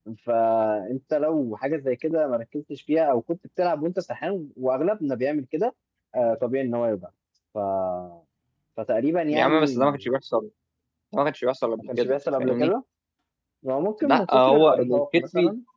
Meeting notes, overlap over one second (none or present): present